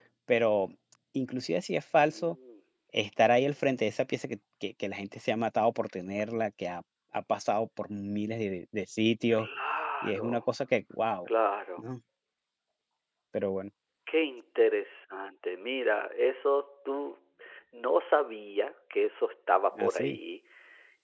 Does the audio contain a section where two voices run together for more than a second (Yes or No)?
No